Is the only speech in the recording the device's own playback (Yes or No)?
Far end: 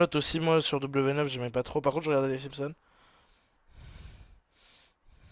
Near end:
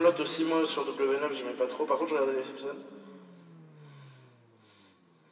Yes